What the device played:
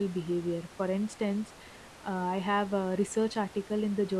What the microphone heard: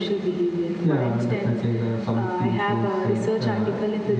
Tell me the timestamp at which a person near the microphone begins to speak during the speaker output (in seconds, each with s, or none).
0.8 s